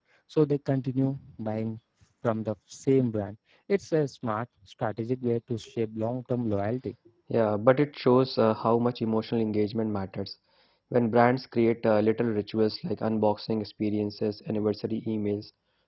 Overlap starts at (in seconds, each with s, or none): none